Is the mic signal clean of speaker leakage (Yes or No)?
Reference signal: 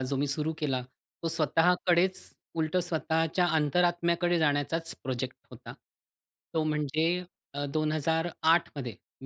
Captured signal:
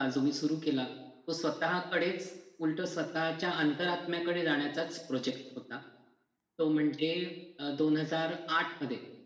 No